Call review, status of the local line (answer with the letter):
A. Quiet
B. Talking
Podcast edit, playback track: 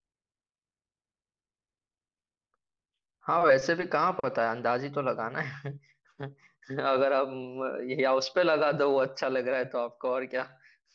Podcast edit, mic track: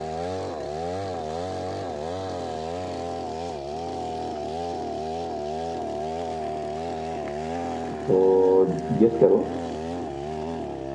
B